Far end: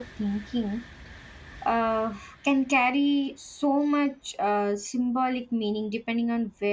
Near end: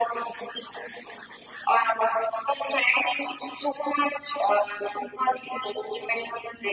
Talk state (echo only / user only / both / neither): echo only